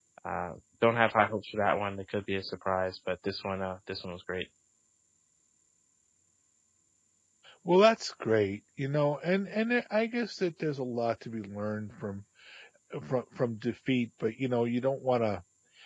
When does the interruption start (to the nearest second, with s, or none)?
none